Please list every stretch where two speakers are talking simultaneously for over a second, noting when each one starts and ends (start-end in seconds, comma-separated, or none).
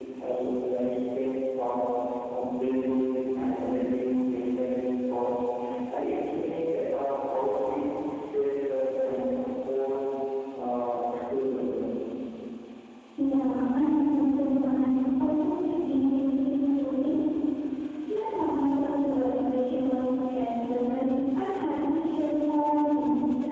none